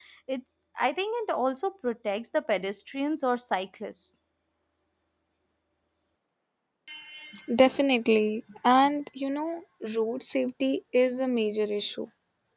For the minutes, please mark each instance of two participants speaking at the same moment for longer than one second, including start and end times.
none

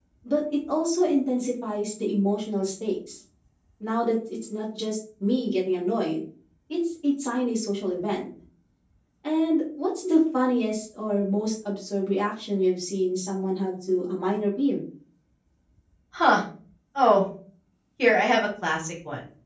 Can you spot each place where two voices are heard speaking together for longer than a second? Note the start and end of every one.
none

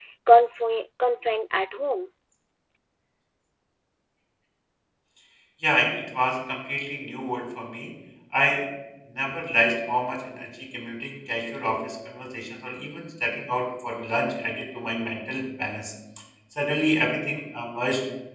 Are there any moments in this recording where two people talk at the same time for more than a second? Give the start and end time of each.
none

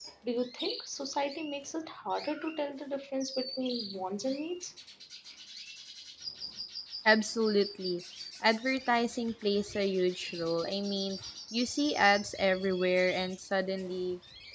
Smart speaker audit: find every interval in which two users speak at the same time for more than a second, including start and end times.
none

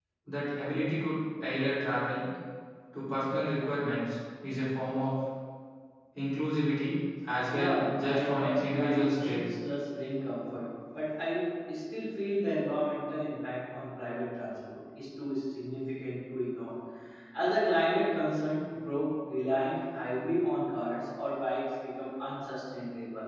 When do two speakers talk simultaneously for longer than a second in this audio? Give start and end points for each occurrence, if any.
7.5-9.4

